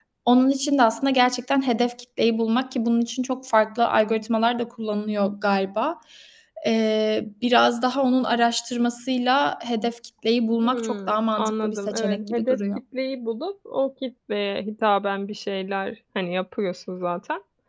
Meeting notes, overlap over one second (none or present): present